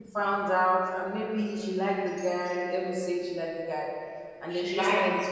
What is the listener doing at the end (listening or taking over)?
listening